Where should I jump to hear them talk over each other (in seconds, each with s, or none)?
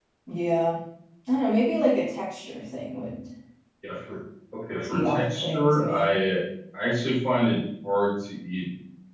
4.9 s